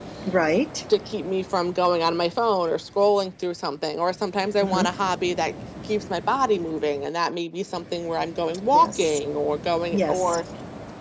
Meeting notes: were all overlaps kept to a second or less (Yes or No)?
Yes